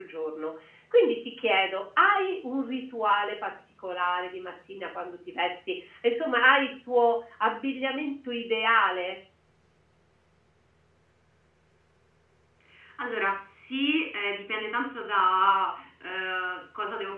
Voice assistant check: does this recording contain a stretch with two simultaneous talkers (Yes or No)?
No